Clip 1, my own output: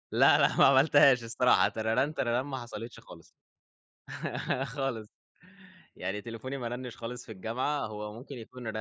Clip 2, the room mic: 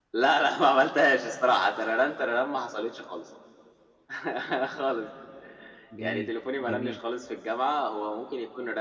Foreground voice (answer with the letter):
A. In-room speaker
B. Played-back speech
B